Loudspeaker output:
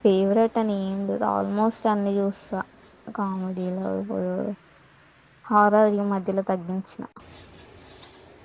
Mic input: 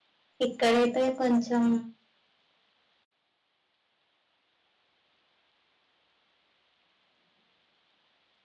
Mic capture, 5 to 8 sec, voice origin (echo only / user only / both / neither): neither